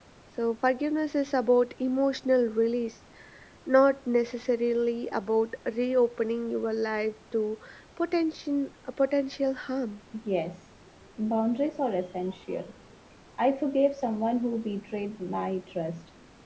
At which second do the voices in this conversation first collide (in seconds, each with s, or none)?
none